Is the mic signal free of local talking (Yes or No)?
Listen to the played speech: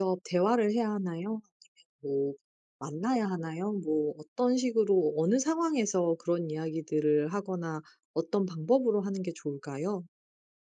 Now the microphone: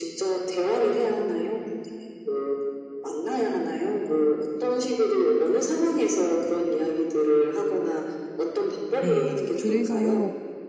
No